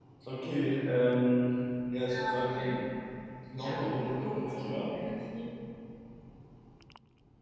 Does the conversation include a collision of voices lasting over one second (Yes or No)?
Yes